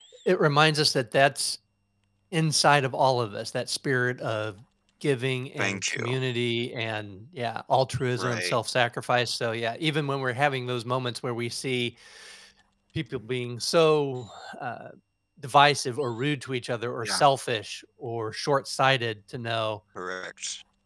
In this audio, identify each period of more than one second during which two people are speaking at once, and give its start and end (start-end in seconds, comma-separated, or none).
none